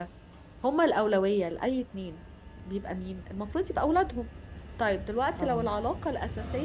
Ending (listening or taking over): listening